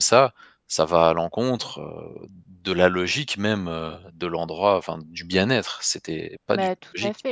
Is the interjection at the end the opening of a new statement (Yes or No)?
Yes